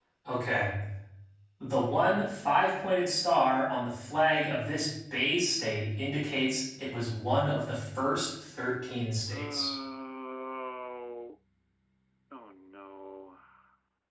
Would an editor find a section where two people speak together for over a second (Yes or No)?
No